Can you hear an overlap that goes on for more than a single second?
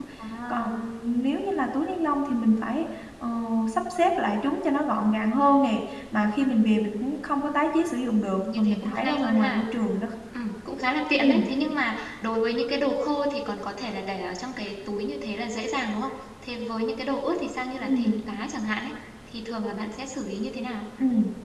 Yes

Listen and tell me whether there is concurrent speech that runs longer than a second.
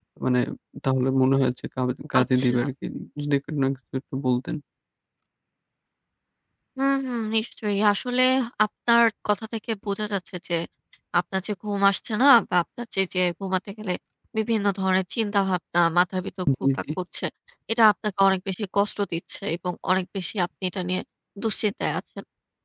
No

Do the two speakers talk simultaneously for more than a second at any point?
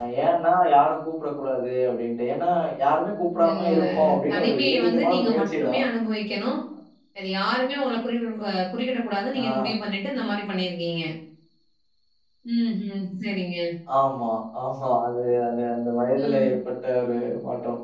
Yes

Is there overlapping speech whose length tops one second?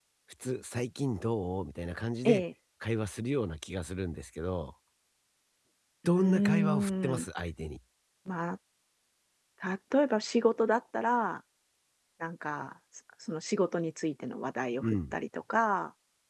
Yes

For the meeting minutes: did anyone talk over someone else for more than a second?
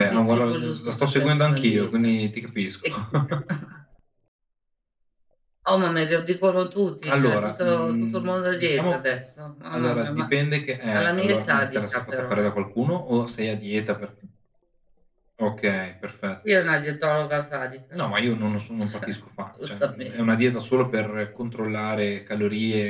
Yes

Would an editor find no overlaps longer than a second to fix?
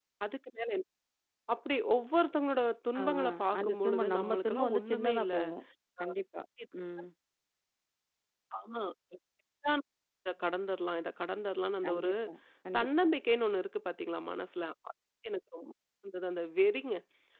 No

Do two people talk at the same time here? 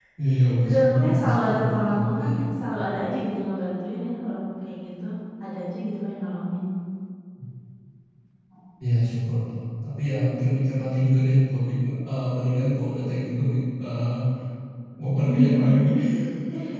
Yes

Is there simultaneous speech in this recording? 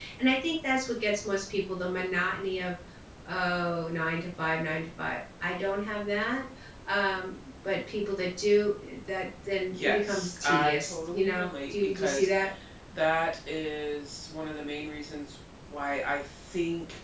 Yes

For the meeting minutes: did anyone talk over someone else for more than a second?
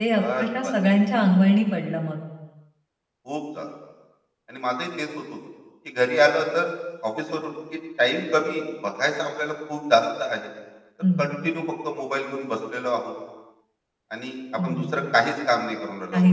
No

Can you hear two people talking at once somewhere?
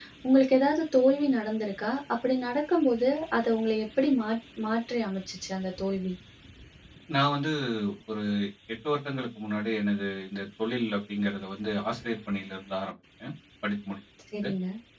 No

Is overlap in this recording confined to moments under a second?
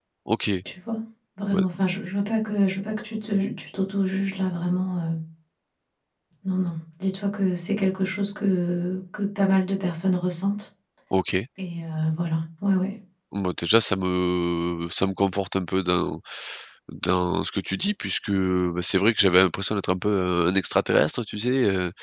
Yes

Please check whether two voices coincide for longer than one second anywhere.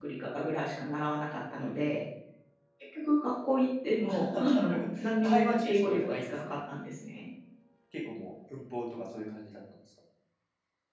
Yes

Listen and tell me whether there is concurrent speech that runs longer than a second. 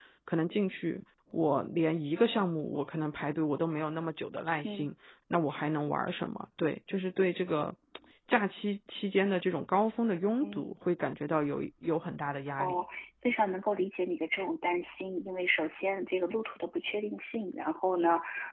No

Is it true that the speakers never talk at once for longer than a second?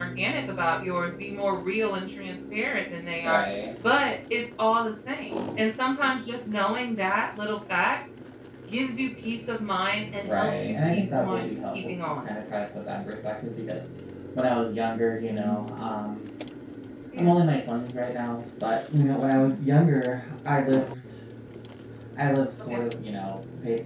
No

